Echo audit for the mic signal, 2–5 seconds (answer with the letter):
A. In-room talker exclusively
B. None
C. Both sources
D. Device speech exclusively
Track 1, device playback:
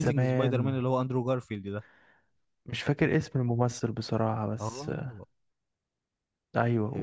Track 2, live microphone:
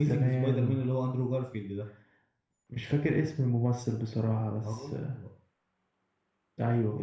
D